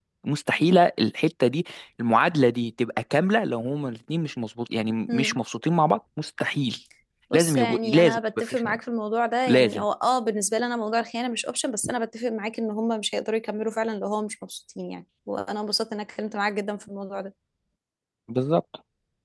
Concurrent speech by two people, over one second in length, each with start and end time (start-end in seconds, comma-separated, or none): 7.3-8.8